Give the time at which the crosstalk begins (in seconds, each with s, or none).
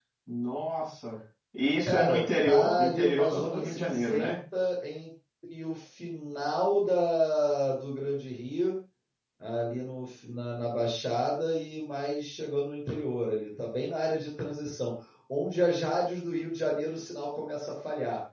1.8 s